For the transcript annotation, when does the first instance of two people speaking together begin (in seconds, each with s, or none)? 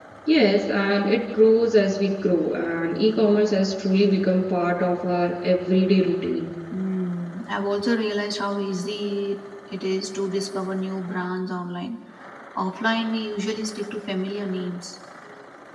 none